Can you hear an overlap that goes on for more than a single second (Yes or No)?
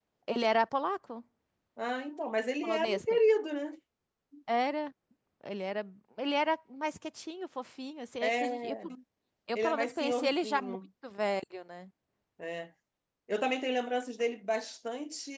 Yes